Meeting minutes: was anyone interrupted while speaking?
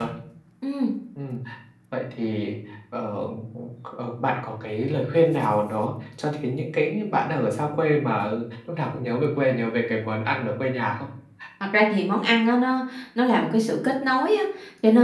No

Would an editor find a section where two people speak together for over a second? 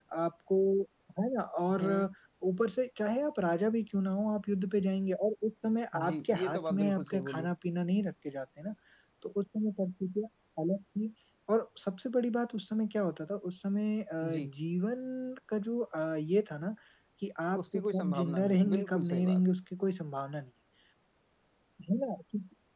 Yes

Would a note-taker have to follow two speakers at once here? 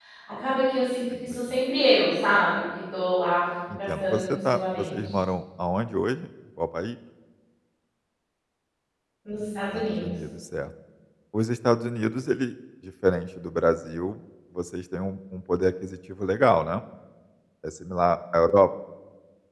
Yes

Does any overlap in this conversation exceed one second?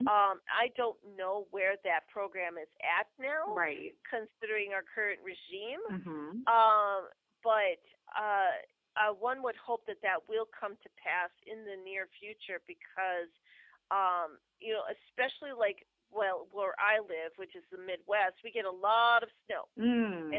No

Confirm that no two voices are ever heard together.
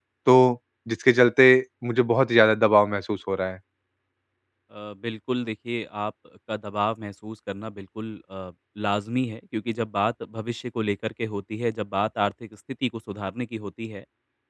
Yes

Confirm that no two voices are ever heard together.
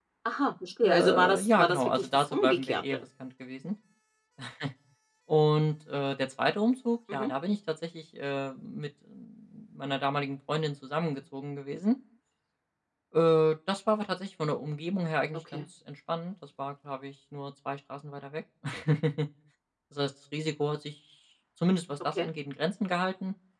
No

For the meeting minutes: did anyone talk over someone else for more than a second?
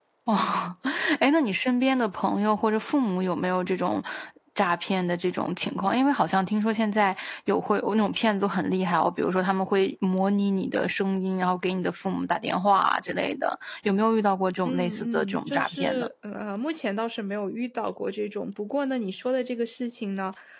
Yes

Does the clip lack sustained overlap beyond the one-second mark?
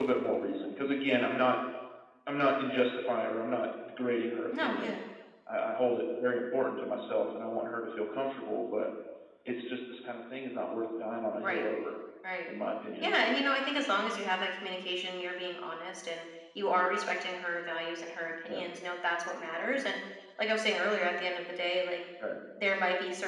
Yes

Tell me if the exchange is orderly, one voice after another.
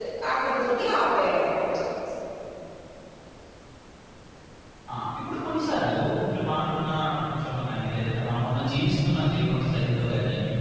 Yes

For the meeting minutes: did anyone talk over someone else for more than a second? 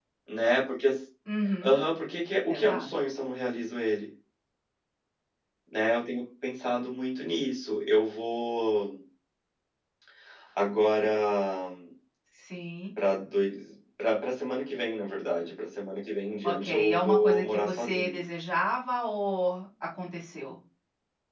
Yes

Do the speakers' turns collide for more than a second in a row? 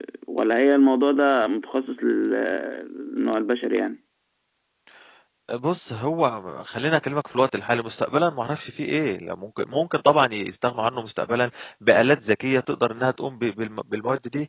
No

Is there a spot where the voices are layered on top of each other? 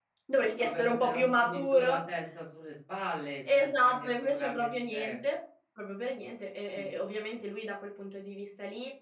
Yes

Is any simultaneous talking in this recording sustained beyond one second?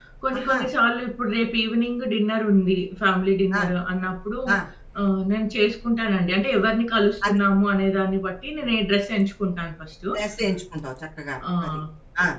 No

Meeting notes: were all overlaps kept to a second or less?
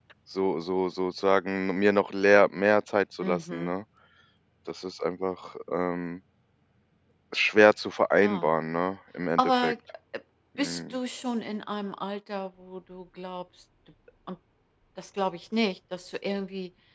Yes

